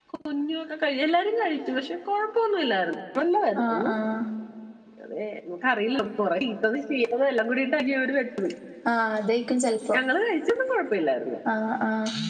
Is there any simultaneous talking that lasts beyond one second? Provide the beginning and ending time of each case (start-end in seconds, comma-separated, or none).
none